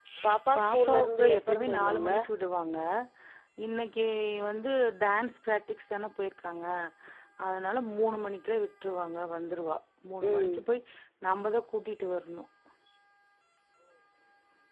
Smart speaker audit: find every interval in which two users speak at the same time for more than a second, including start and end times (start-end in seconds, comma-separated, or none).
0.6-2.1